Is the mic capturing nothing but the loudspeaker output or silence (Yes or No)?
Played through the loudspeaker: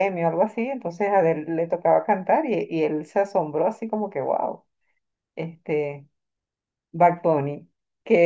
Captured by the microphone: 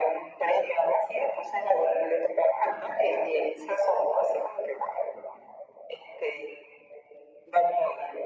Yes